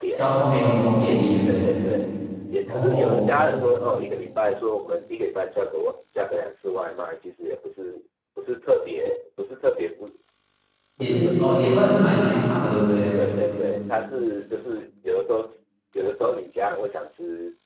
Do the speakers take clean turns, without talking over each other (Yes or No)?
No